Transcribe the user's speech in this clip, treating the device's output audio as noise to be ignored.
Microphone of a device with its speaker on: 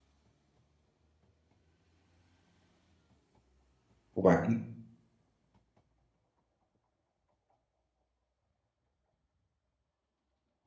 وبعدين؟

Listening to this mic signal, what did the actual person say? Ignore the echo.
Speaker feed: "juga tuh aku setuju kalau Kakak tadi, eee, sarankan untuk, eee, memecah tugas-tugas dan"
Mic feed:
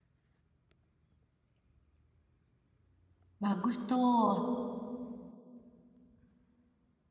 bagus tuh.

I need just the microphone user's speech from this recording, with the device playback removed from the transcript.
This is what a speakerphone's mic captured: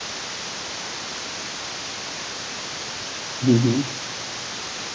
হুম, হুম,

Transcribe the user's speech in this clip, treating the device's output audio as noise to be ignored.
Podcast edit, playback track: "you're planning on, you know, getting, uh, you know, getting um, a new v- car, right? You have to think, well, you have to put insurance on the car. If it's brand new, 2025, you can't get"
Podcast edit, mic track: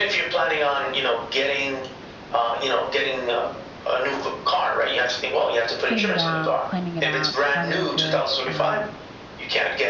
sitting down, planning it out, having a good, um,

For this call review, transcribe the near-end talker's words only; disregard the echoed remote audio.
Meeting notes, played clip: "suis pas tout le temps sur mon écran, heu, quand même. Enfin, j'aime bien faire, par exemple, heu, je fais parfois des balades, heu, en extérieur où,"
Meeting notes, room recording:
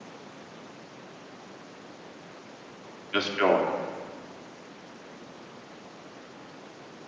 bien sûr, ouais.

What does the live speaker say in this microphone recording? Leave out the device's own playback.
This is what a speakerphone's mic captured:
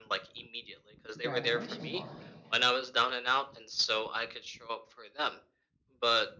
the graduation party.

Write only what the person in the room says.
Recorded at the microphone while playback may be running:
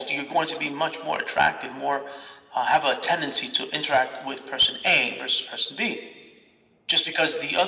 none

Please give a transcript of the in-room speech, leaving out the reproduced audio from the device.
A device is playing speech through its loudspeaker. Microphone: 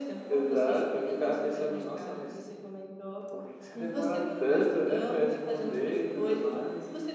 uhum.

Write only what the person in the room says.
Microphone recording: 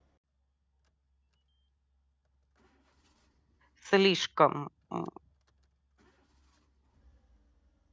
слишком, м,

